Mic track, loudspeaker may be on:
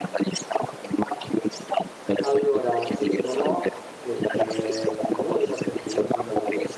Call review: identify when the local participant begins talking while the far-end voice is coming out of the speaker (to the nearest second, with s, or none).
2 s